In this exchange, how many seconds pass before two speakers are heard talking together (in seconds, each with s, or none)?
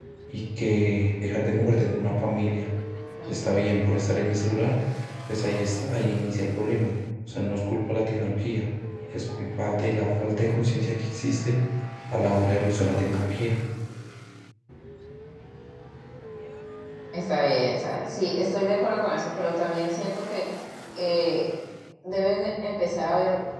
none